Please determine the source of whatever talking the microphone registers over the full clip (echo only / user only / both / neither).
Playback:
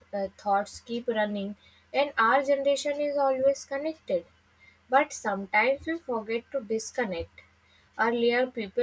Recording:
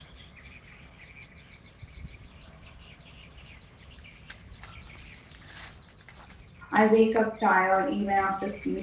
user only